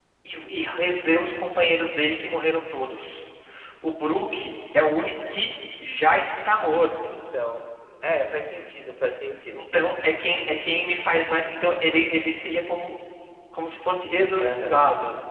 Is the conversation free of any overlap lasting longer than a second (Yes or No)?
Yes